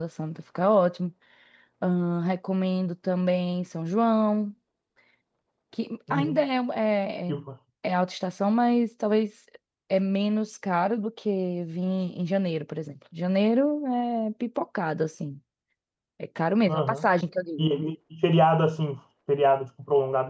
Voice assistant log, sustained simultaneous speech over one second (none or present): none